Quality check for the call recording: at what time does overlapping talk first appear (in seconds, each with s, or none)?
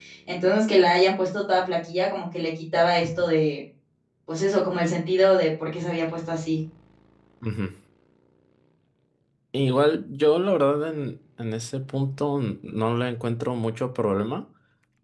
none